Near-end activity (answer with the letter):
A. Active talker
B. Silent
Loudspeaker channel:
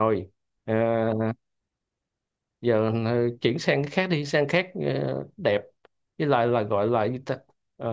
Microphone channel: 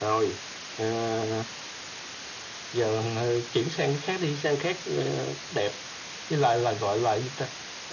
B